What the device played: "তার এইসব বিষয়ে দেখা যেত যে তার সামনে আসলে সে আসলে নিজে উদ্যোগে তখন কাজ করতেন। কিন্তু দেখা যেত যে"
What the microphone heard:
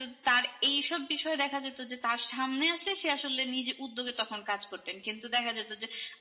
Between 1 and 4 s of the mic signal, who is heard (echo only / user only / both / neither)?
echo only